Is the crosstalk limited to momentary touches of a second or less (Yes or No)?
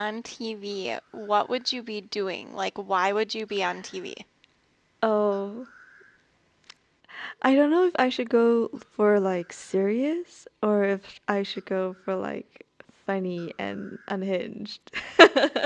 Yes